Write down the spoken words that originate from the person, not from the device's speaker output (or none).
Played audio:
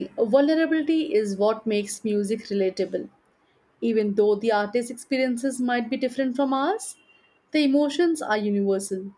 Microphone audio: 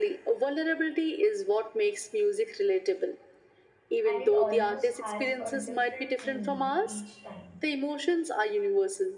and it almost has a different meaning each time.